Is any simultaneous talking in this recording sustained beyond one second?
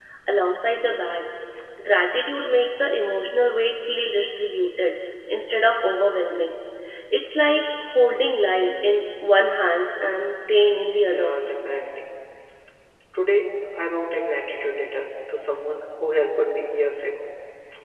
No

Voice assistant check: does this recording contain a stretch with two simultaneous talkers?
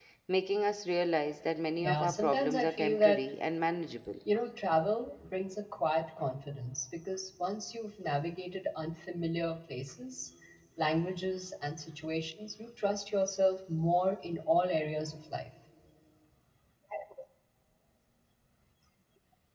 Yes, from 1.8 s

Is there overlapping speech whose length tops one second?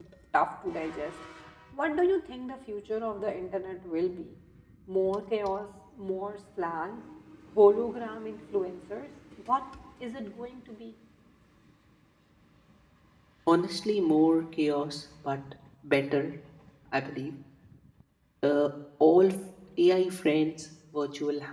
No

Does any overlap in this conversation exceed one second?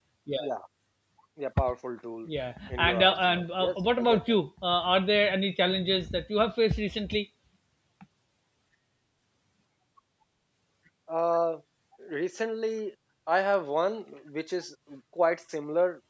Yes, from 2.7 s

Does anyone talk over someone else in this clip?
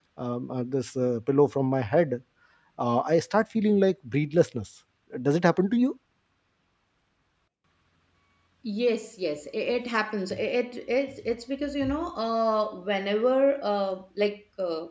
No

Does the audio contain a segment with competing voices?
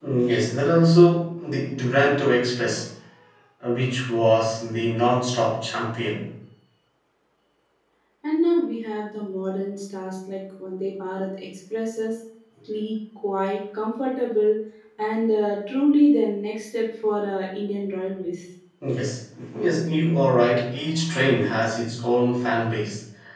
No

